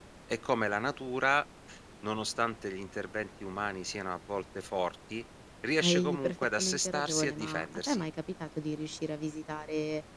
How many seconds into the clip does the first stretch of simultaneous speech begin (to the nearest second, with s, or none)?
6 s